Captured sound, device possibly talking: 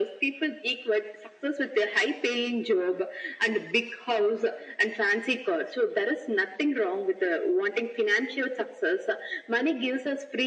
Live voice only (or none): none